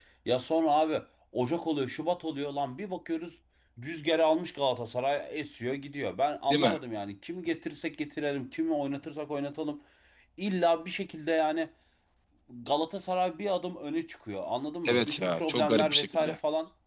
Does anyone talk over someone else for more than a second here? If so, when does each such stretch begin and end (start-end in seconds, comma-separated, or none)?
14.8-16.4